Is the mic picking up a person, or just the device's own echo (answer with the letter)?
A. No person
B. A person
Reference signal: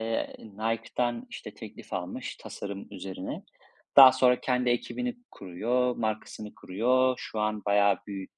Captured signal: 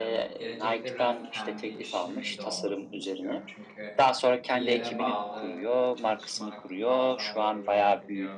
B